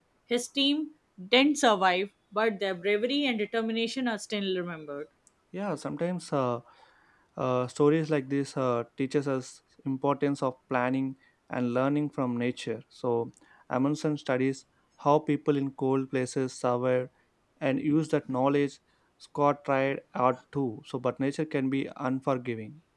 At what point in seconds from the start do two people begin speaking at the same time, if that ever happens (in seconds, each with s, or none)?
none